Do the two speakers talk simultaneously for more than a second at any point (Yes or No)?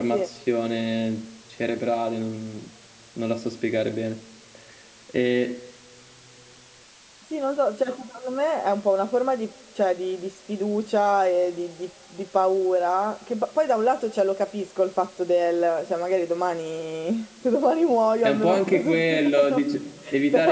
Yes